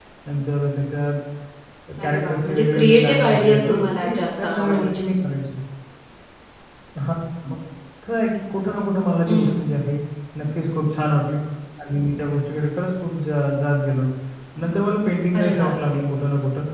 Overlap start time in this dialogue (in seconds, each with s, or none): 2.0 s